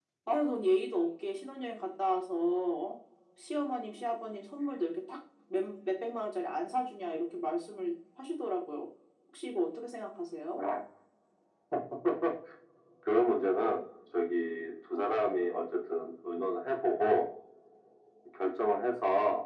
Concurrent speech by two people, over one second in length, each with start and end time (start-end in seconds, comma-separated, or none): none